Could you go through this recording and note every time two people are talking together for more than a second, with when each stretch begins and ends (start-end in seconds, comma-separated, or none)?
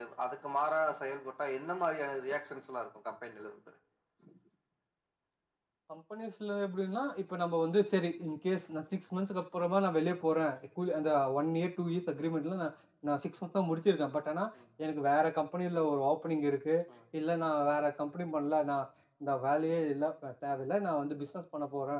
none